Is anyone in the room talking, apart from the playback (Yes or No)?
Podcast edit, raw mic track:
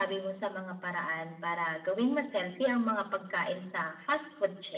No